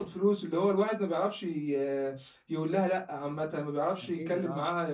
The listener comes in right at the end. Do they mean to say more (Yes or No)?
No